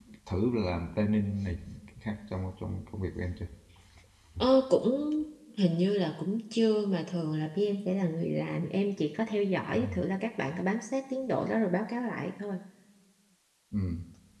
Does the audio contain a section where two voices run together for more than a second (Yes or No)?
No